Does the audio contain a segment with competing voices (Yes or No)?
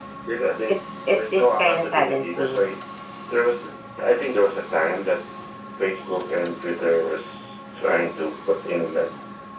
Yes